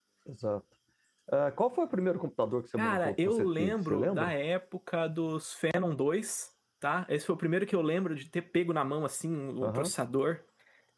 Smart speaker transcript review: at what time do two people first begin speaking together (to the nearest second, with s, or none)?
3 s